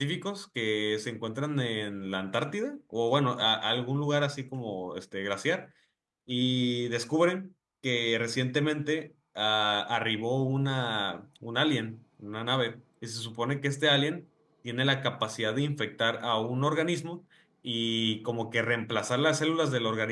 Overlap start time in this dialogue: none

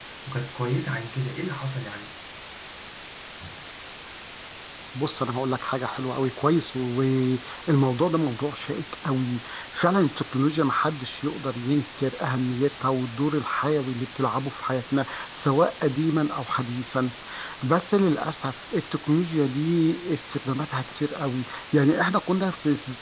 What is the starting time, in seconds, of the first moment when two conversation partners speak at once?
none

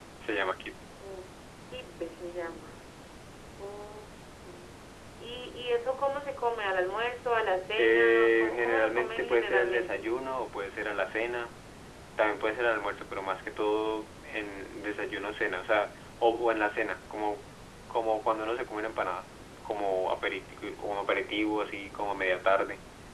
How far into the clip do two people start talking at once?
7.8 s

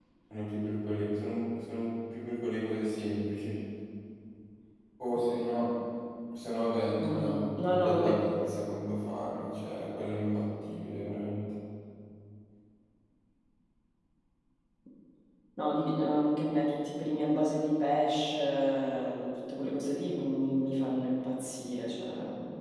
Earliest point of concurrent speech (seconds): 7.0 s

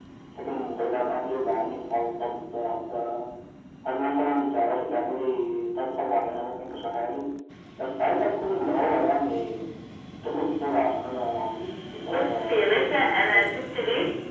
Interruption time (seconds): 12.1 s

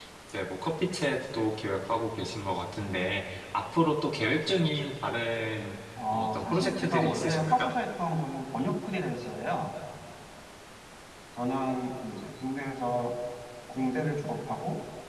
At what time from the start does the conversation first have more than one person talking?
6.0 s

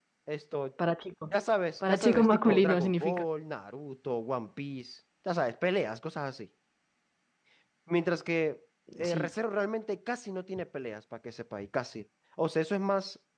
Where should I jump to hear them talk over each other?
1.9 s

